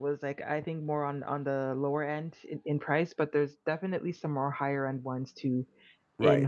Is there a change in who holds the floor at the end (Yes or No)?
Yes